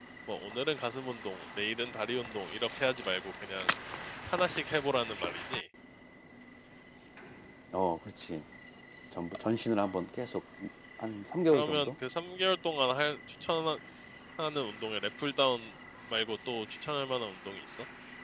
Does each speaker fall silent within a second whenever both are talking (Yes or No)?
Yes